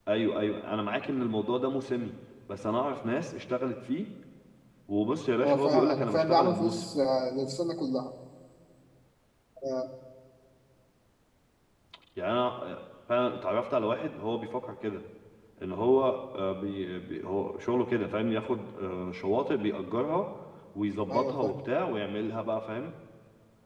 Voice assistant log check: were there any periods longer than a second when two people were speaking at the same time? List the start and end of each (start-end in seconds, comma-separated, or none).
5.4-6.8